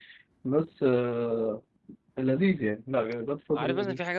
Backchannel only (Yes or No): No